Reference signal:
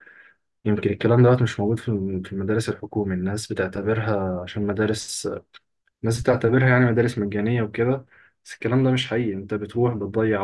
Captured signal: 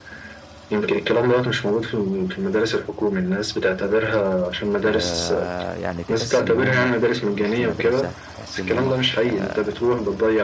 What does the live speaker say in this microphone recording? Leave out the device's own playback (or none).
آه يعني تحس ان هم في مش في مدرسة تحس ان هم في آه،